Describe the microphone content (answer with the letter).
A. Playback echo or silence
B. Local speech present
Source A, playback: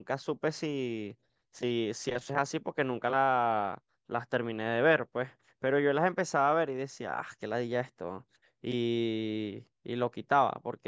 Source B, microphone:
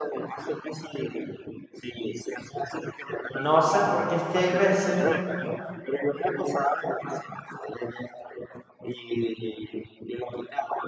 B